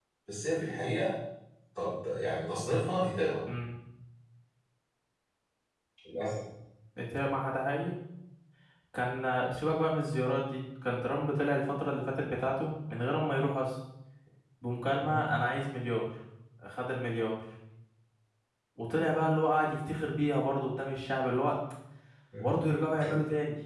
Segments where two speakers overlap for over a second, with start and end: none

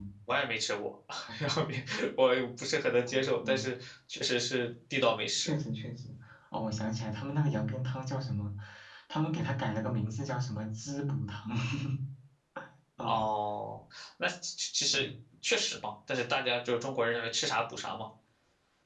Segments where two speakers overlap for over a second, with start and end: none

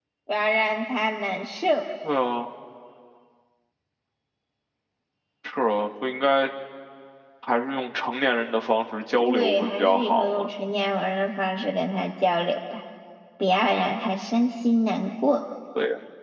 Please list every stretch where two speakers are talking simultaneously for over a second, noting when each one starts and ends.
9.2-10.5

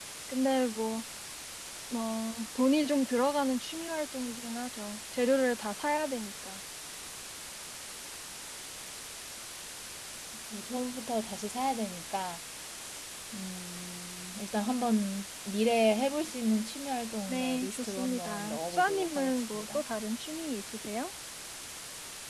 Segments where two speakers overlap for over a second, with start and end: 17.3-19.8

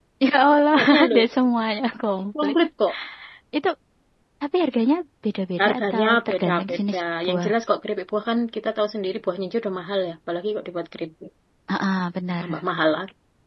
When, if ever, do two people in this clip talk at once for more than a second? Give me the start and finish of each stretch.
5.6-7.5

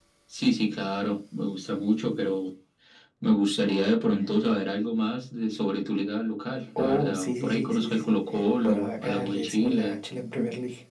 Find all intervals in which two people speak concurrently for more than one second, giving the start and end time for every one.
6.8-8.2, 8.6-10.0

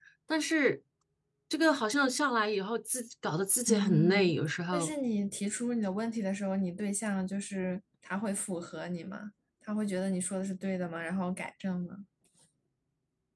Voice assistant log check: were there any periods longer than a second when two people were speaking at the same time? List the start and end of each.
3.7-4.9

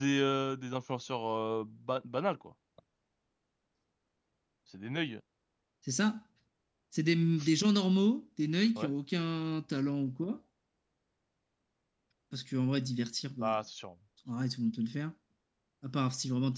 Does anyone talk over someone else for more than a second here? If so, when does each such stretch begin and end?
none

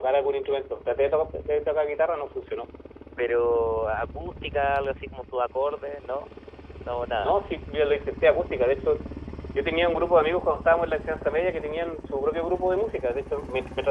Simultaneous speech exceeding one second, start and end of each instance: none

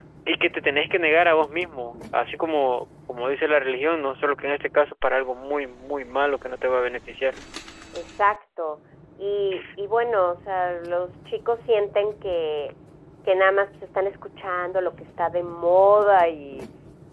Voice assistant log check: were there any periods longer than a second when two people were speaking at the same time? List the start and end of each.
none

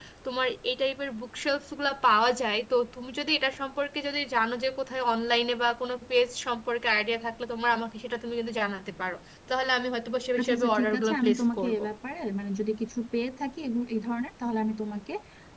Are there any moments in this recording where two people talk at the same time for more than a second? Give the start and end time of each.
10.4-11.8

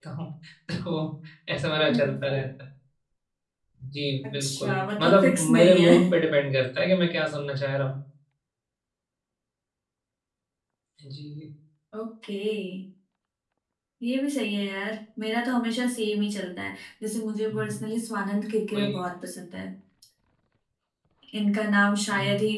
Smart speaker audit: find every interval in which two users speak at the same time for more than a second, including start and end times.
4.2-5.9

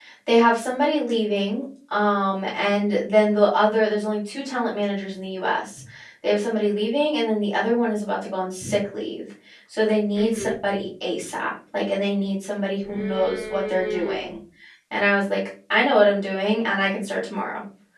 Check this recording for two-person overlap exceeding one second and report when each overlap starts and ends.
12.9-14.4

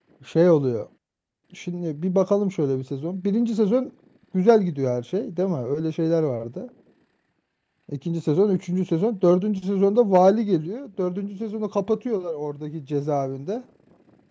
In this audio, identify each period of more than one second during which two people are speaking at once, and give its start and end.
none

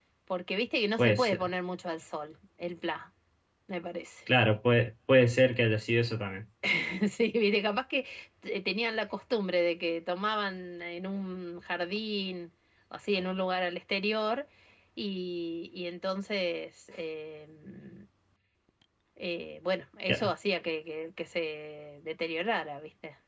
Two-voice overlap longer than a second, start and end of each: none

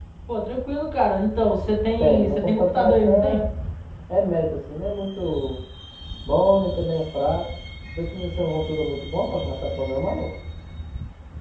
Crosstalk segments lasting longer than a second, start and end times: 2.0-3.4

